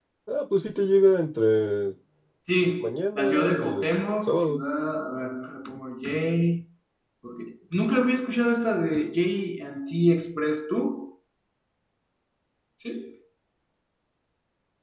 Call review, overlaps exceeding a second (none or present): present